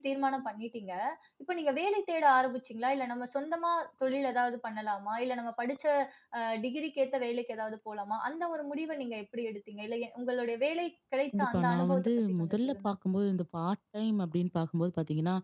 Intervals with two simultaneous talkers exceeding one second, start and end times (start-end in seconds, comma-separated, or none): 11.4-12.9